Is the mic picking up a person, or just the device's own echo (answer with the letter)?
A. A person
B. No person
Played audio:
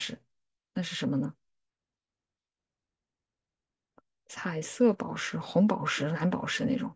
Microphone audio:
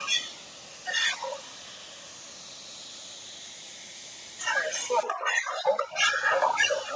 B